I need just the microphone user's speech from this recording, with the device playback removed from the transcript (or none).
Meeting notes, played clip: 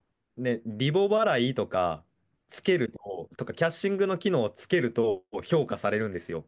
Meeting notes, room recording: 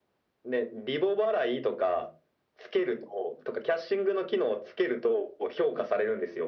none